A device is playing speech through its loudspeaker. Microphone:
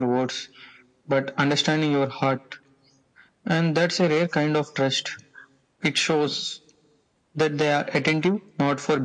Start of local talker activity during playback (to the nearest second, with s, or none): none